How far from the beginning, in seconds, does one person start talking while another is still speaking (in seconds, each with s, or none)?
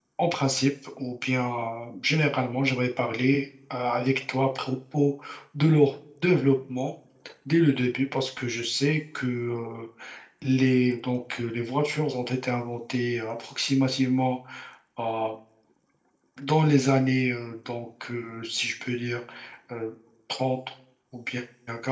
none